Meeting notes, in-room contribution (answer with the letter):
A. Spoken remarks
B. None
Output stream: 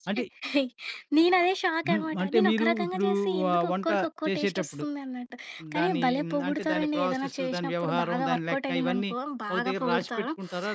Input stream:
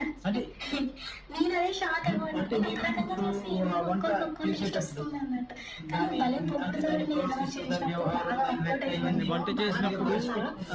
A